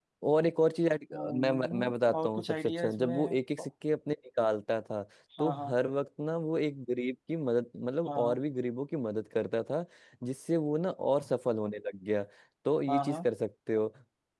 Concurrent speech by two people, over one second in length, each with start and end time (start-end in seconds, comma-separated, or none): 1.4-3.1